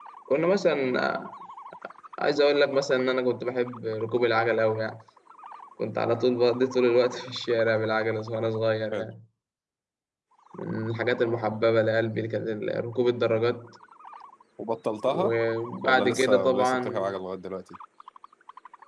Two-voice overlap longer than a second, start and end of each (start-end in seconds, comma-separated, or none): 15.8-17.1